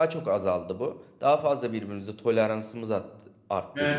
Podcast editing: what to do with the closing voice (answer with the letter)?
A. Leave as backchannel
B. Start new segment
B